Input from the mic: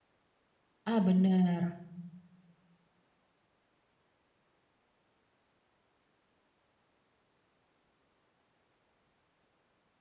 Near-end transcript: Ah, benar.

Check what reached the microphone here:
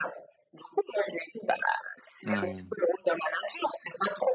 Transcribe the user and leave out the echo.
Moui.

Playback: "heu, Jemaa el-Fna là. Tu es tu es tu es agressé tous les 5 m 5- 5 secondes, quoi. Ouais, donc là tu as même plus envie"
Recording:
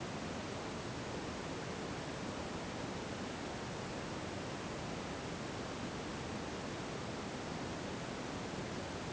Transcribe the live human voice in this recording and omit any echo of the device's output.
none

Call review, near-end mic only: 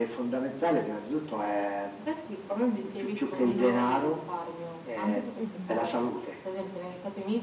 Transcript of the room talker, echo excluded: Mh-mh.

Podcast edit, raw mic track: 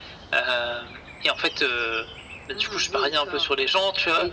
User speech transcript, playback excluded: none

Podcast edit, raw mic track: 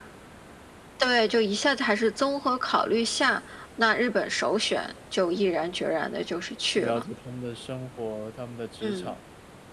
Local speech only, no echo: 去了解他们的生活、他们的职场。

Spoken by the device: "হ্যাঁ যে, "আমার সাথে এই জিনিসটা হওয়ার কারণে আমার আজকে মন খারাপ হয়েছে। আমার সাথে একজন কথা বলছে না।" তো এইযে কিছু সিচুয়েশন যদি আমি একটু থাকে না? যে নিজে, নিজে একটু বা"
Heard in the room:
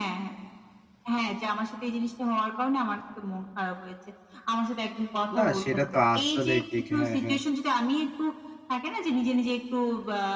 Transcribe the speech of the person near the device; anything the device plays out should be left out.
না সেটা তো আসলেই ঠিক। হ্যাঁ, হ্যাঁ।

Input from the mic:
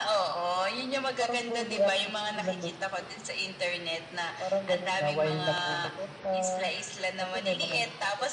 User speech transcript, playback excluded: none

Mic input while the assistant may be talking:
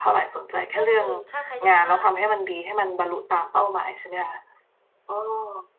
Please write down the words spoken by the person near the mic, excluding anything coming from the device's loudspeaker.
เรื่องอื่น ถ้าใครจะมา

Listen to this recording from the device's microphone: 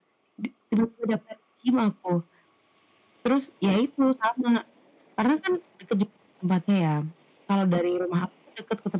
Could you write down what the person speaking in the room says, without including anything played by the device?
none

